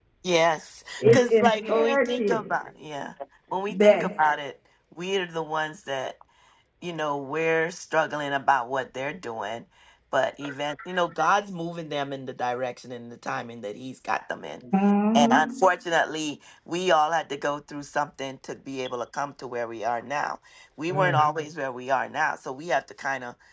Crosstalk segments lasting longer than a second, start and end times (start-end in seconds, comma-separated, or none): 1.0-2.4